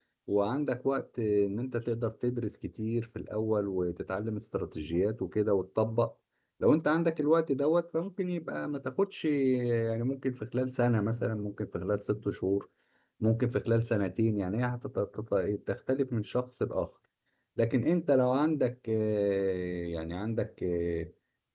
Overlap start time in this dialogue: none

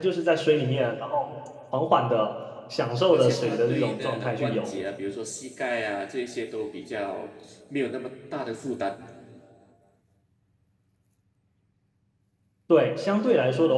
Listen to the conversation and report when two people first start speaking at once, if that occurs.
3.1 s

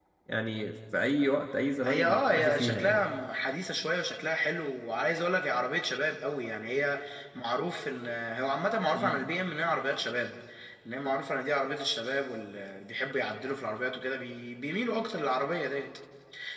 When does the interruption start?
1.8 s

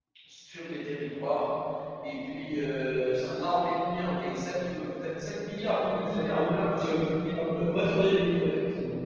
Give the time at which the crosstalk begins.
5.8 s

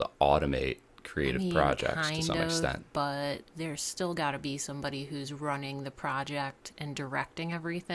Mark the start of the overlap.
1.3 s

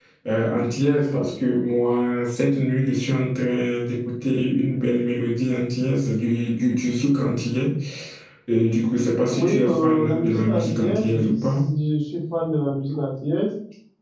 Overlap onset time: 9.3 s

